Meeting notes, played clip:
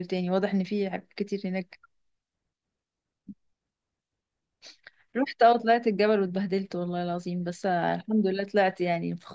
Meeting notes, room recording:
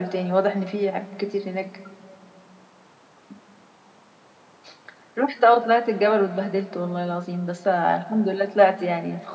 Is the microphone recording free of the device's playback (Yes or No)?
No